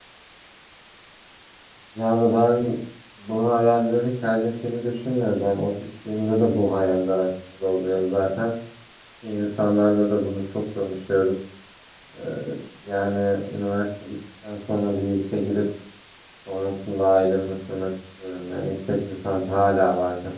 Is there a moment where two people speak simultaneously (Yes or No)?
No